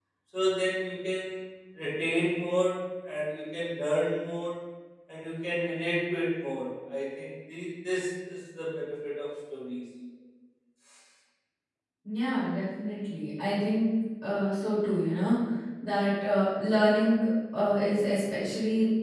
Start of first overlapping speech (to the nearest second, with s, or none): none